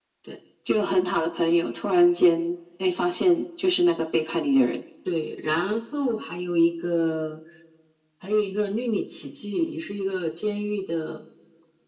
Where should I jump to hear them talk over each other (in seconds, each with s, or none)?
none